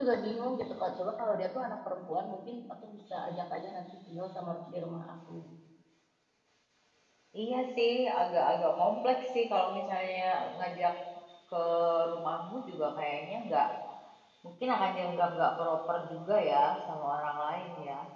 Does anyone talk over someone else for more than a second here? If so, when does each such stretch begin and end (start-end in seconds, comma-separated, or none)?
none